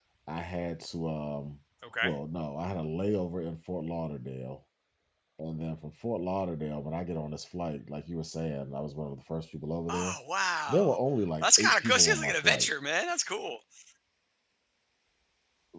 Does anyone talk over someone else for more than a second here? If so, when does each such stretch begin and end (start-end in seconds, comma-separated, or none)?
11.4-12.7